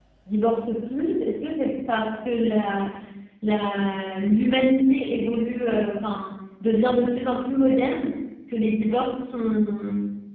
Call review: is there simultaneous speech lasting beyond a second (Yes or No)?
No